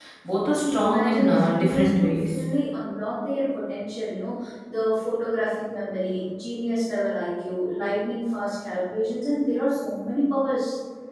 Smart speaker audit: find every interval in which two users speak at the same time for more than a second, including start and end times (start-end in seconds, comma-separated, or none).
0.5-2.4